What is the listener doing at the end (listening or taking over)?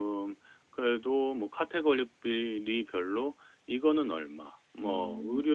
listening